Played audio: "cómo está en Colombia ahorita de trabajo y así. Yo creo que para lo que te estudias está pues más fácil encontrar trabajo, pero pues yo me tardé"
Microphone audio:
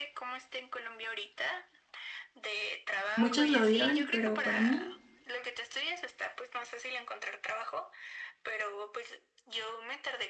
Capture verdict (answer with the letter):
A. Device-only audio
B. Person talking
B